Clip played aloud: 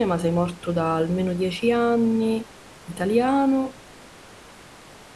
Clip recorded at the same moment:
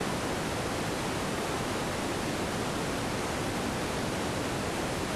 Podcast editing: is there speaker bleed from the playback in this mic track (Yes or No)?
No